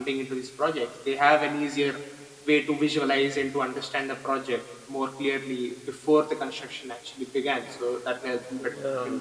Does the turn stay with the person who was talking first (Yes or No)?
Yes